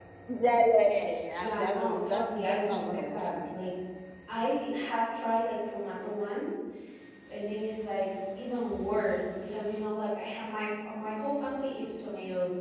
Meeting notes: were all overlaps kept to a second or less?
No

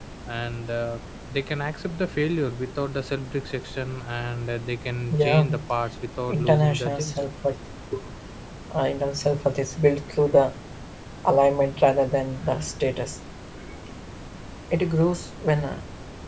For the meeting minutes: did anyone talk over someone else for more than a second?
Yes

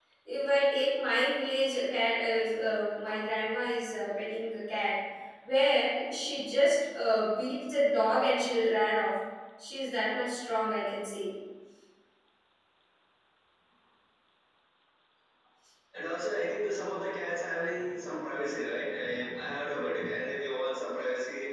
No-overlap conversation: Yes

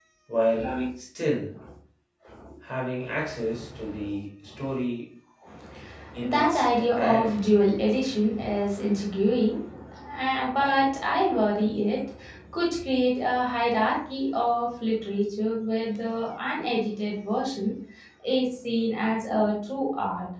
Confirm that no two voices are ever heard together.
No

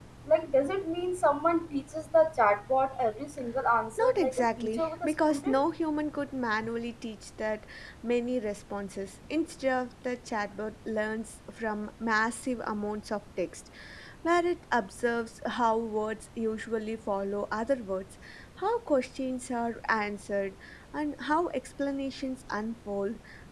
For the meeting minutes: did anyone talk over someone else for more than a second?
Yes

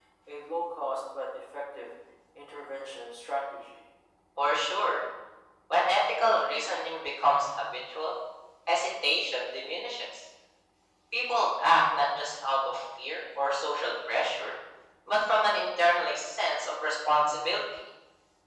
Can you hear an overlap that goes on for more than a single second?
No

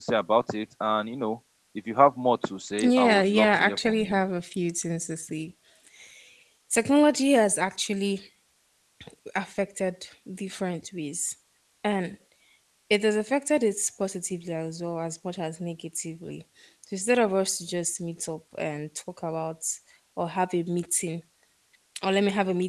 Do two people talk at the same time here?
Yes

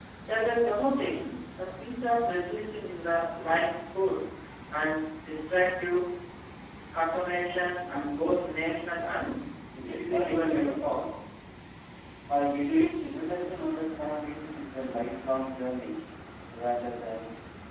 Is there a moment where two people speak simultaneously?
Yes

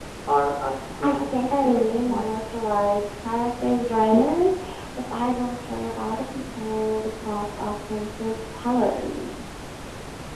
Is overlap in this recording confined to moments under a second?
No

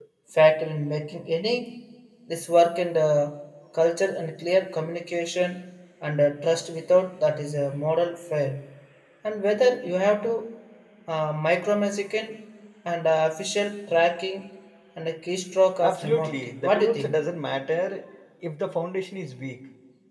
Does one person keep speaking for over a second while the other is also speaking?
Yes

